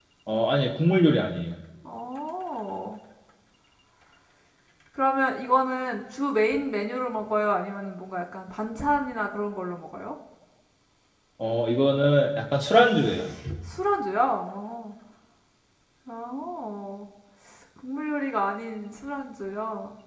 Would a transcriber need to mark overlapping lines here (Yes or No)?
No